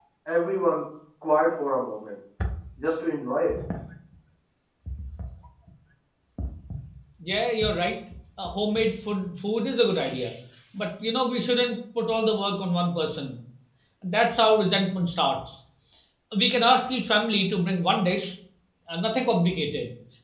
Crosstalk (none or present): none